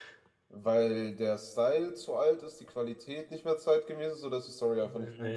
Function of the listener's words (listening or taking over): taking over